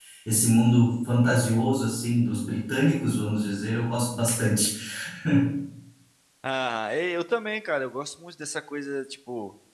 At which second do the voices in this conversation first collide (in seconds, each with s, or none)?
none